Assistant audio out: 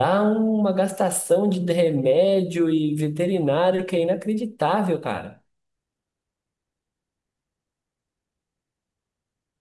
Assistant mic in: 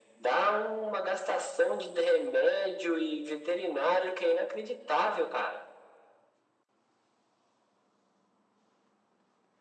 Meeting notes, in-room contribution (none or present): none